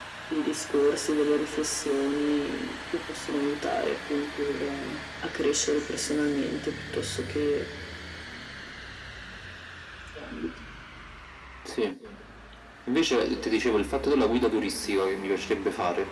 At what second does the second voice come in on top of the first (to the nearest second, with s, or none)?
none